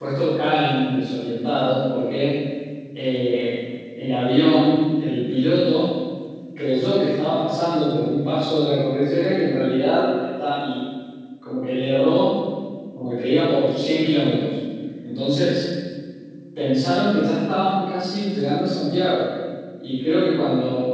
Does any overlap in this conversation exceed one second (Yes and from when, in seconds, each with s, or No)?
No